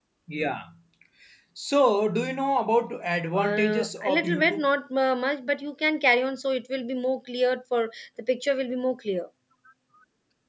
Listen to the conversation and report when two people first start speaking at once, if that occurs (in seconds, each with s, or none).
3.3 s